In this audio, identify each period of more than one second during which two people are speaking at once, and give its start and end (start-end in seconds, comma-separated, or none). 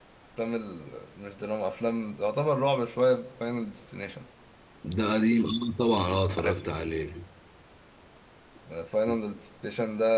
none